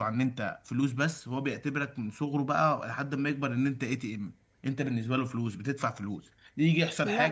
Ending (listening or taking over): listening